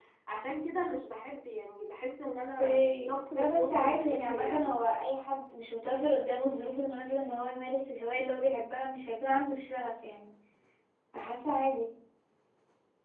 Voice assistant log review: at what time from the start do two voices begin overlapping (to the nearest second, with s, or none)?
2 s